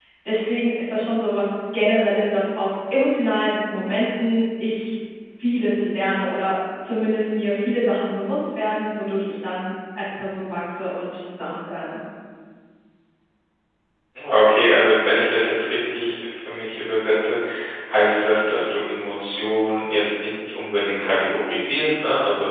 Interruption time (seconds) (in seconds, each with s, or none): none